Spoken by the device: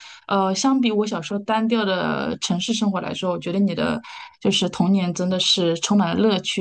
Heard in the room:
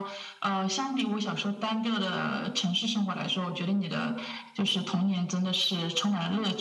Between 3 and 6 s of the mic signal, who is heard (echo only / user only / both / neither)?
echo only